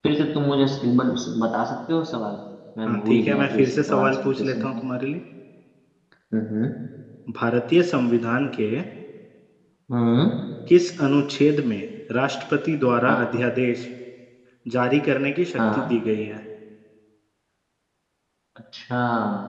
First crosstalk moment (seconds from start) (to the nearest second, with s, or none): 3 s